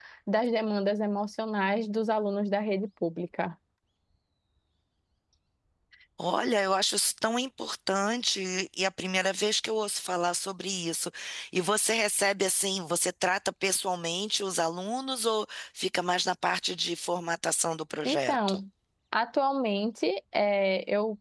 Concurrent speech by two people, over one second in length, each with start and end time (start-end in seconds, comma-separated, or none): none